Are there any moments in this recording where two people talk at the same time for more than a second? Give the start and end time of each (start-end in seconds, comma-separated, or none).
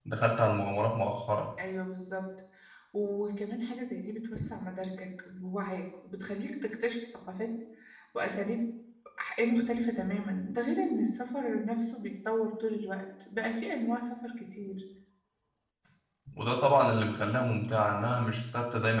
none